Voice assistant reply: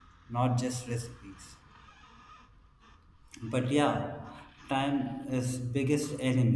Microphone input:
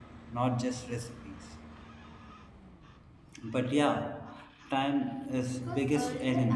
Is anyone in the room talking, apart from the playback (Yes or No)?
Yes